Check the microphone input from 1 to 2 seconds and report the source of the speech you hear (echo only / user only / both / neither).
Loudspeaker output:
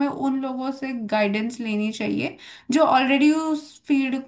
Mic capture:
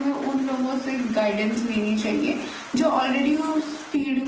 echo only